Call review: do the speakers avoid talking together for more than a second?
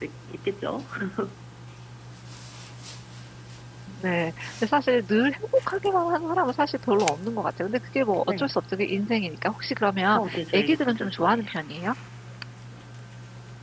No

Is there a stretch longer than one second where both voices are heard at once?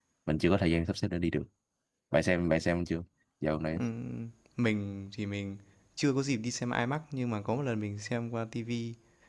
No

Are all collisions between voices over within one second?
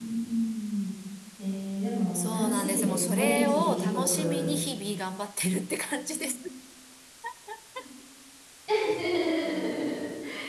No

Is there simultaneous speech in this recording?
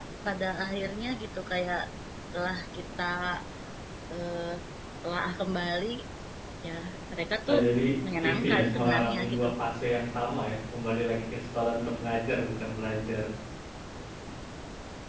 Yes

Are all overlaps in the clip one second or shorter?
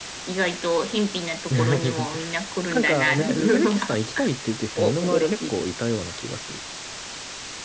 No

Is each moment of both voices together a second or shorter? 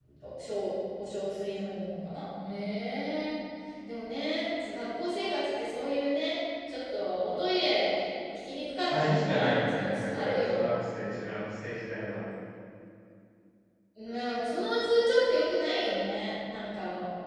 No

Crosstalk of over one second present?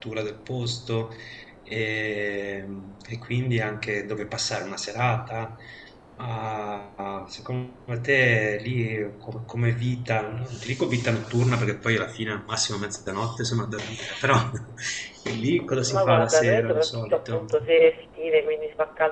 Yes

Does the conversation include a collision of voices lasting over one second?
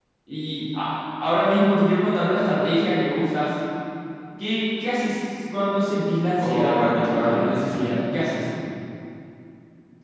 Yes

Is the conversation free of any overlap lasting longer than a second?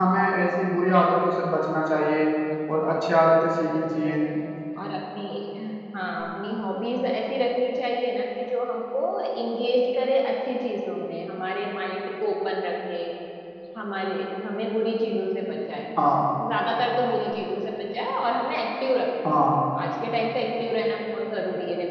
Yes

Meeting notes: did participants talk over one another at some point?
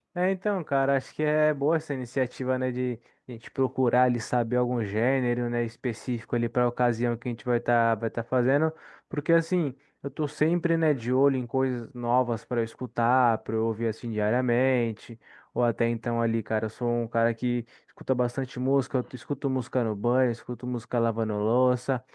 No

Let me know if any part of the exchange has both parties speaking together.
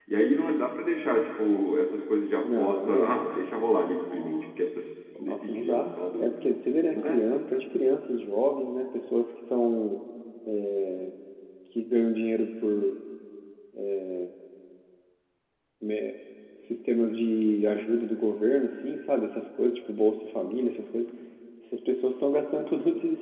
Yes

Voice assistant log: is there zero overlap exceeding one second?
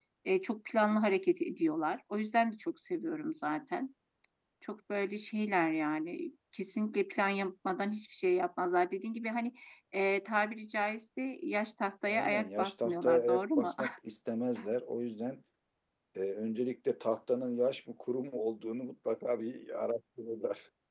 No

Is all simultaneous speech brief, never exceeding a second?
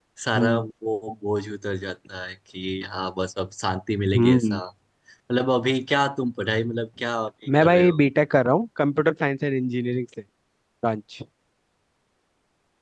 Yes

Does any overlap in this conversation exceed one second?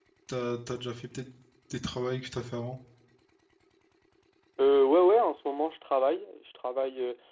No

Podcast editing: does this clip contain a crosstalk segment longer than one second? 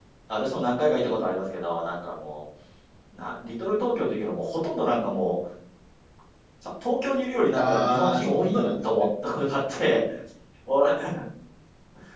Yes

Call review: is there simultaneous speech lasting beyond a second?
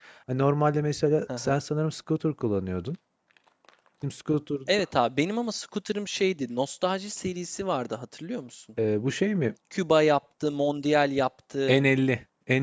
No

